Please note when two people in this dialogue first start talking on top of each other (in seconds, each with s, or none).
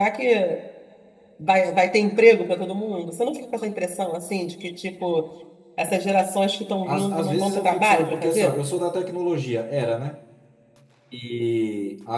6.9 s